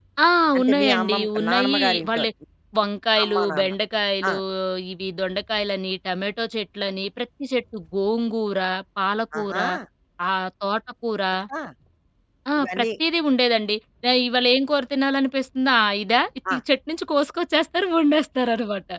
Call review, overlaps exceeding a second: present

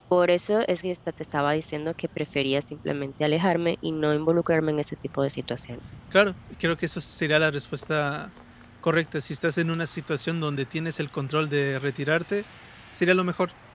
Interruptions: none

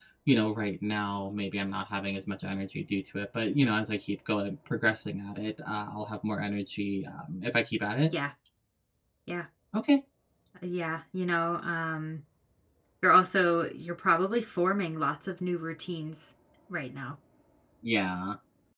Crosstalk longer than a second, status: none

